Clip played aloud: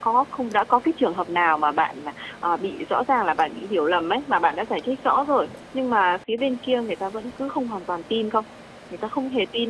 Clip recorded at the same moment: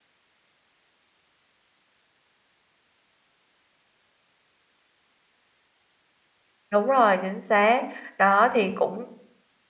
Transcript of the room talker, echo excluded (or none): Đúng rồi, chính xác. Đó thì cũng